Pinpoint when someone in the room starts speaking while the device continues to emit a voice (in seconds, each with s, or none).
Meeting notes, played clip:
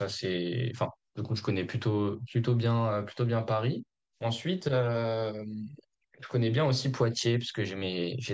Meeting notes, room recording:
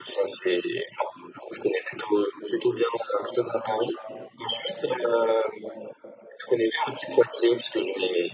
none